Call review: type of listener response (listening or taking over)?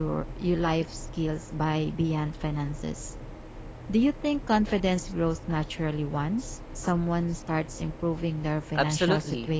taking over